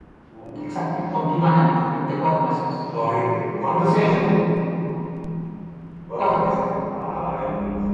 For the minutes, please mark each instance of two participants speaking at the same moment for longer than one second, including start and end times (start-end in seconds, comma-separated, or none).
none